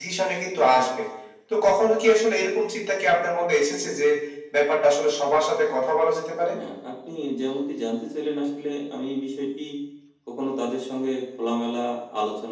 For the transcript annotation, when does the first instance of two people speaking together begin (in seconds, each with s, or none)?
none